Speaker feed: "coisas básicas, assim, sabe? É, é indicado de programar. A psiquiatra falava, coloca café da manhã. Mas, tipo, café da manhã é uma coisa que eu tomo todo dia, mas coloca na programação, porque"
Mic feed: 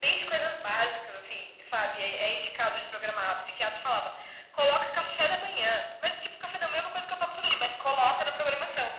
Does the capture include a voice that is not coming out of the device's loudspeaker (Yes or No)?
No